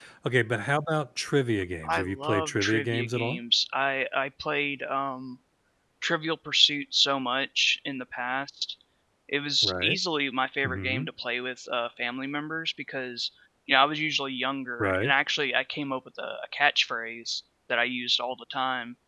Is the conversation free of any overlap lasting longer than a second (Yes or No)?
No